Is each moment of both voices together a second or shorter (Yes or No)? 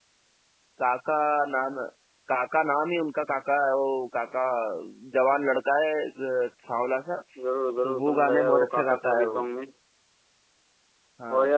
No